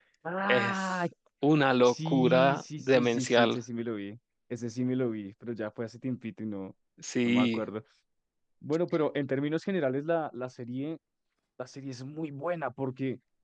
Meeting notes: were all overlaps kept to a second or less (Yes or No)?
No